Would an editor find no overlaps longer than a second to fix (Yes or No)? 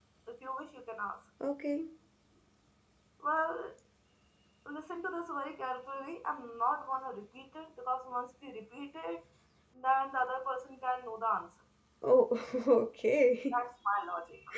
Yes